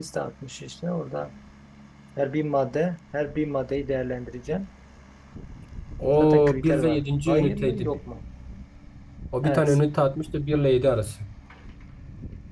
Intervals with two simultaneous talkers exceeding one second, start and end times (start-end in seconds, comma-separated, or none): 6.2-8.0